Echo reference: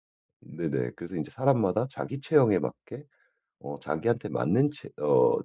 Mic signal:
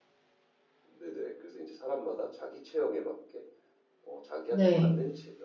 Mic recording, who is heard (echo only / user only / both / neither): both